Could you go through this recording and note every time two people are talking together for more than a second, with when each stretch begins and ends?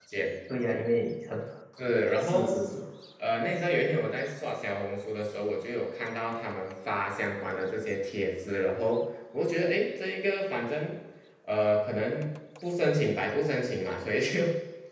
none

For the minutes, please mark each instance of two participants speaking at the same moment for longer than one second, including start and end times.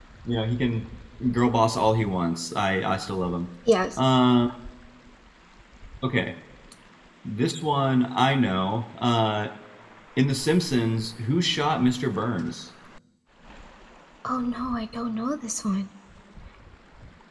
none

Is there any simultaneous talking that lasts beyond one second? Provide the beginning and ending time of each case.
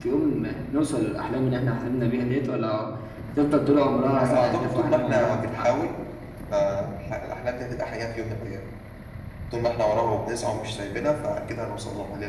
4.2-5.8

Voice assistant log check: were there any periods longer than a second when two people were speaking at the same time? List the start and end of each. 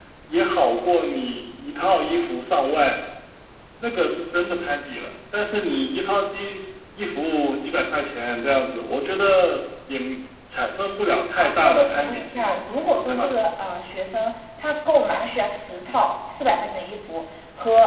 11.4-12.6

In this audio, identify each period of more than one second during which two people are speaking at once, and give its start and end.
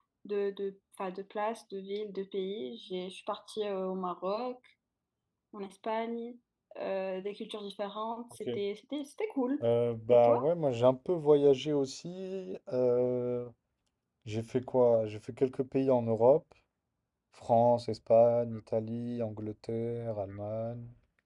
none

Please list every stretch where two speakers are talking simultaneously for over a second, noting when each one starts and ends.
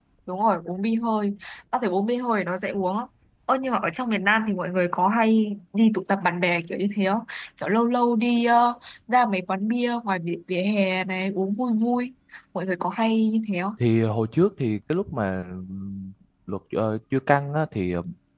none

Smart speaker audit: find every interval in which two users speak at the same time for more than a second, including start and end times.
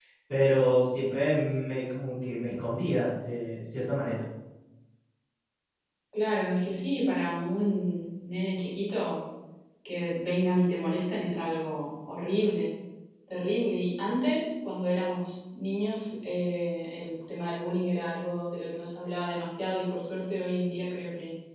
none

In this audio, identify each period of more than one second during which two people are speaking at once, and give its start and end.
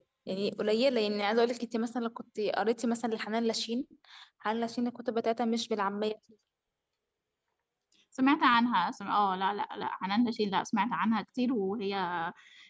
none

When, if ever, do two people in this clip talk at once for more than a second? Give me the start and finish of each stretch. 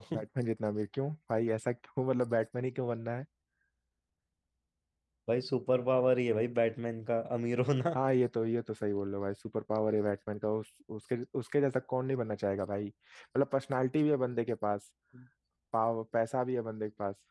none

